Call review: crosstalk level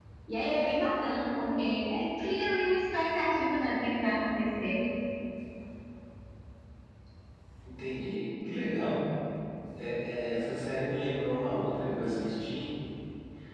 none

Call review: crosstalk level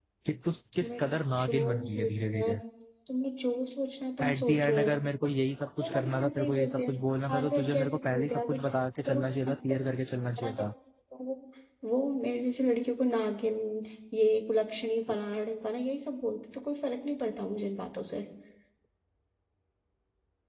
present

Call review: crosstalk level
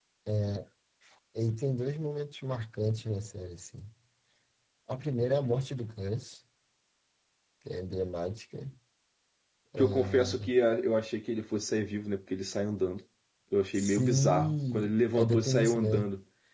present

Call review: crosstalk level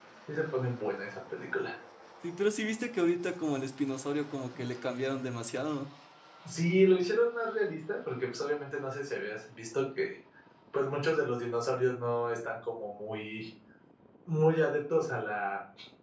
none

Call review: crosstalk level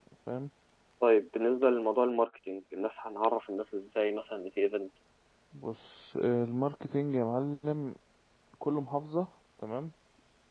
none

